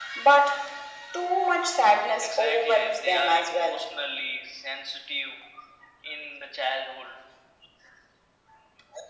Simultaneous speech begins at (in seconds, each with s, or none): 2.2 s